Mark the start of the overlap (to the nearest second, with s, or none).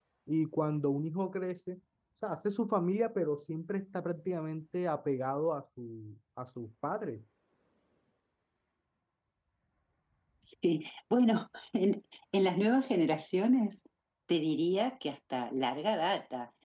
none